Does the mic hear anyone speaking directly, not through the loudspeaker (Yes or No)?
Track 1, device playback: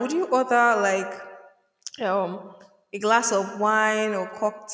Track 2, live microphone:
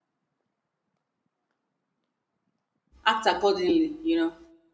Yes